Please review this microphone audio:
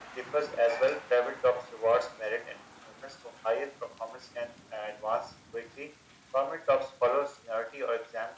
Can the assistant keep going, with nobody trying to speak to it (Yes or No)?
Yes